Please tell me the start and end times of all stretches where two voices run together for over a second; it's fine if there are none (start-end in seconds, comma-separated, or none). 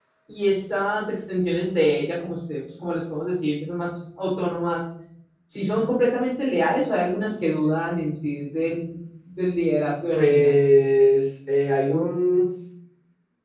none